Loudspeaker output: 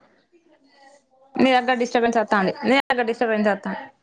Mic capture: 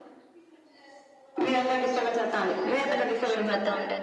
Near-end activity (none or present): present